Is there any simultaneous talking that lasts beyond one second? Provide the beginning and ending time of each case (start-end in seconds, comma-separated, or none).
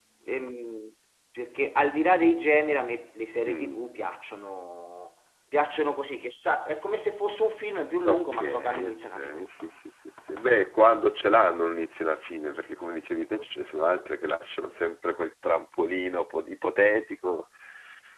8.0-9.4